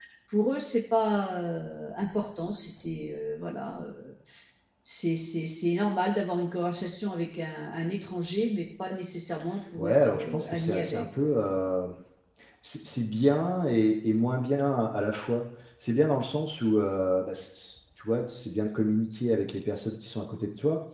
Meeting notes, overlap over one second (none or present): present